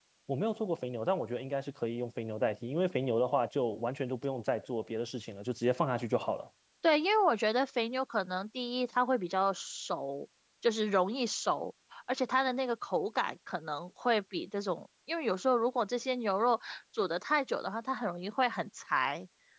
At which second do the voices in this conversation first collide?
none

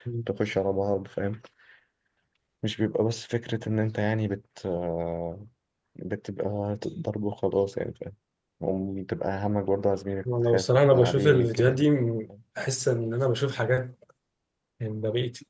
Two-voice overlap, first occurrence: 10 s

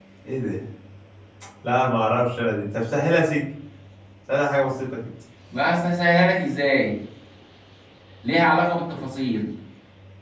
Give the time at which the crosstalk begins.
none

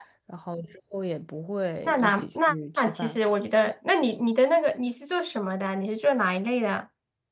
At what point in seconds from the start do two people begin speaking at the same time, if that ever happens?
2 s

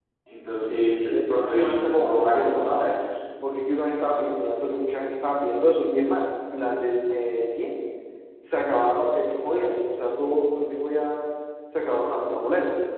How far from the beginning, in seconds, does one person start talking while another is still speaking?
1 s

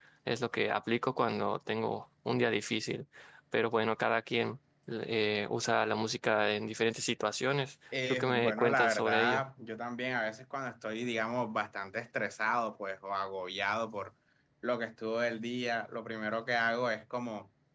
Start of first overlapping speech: 8 s

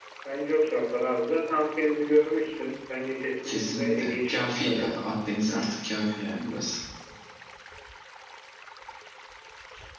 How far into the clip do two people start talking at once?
3 s

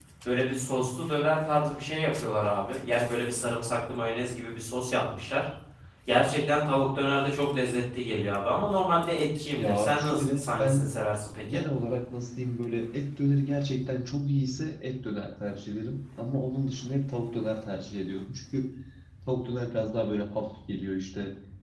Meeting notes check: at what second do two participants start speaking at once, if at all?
10 s

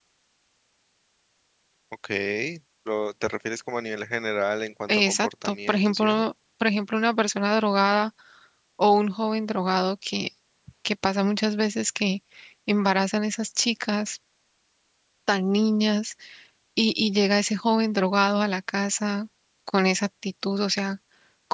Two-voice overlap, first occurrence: 5 s

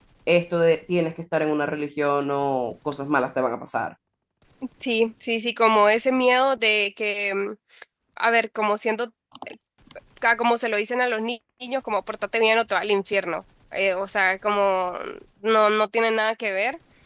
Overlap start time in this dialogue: none

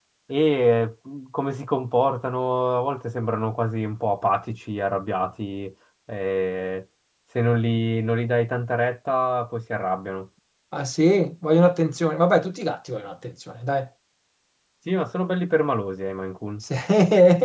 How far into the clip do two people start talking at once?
none

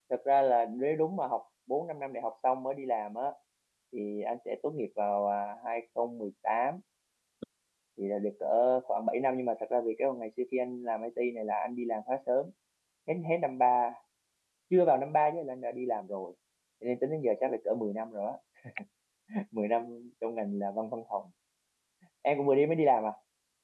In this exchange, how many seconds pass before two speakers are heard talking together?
none

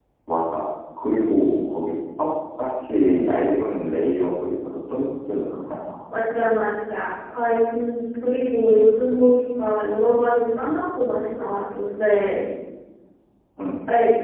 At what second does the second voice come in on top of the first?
none

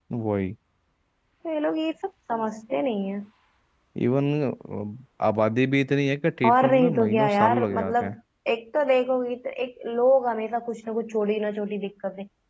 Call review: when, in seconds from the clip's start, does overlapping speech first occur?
6 s

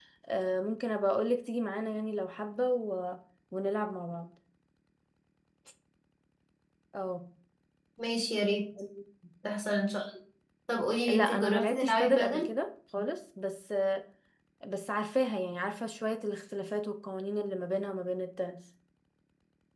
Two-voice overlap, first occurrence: 11 s

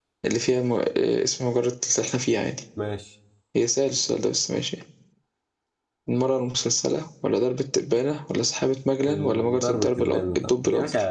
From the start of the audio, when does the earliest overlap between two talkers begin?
9 s

